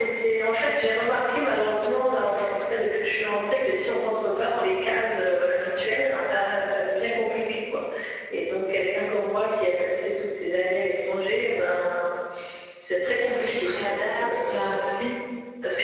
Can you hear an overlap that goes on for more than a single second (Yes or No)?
Yes